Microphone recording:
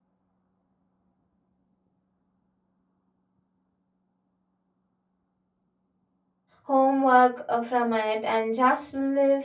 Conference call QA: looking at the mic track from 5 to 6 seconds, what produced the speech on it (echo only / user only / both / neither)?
neither